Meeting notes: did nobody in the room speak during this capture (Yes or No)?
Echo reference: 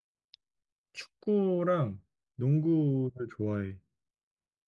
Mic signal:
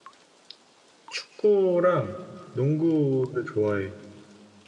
Yes